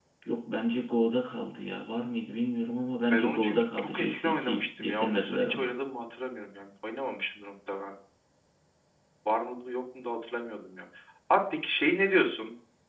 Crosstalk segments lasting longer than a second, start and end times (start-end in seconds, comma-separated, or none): 3.1-5.7